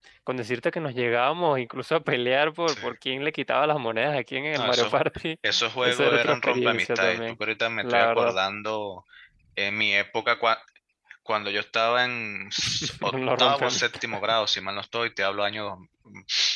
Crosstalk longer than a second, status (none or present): present